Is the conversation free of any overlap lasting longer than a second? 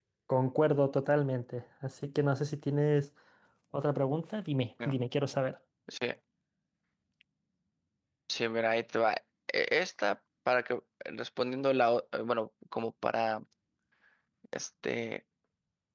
Yes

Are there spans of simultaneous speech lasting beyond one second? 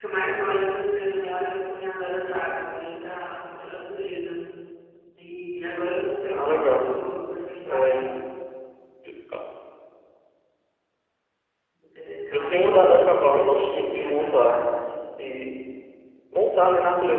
Yes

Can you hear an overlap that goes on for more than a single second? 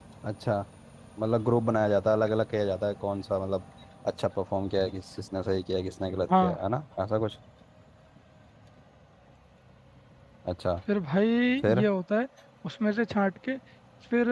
No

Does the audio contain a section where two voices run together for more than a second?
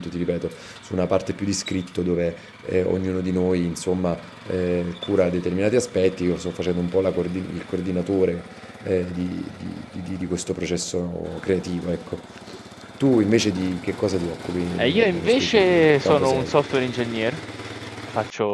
Yes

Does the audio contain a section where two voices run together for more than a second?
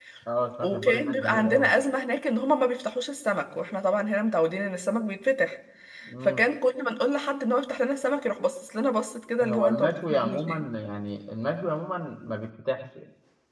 Yes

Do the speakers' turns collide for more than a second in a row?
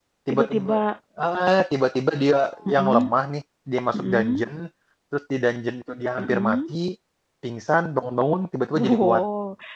No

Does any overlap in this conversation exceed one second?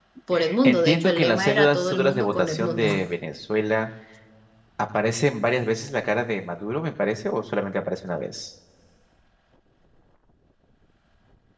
Yes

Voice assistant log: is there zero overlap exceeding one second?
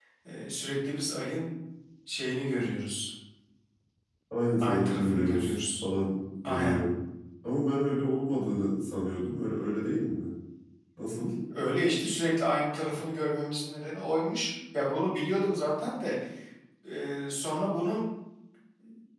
No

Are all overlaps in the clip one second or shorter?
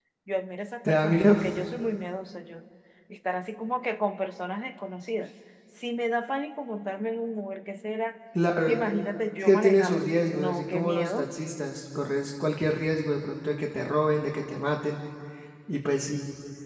No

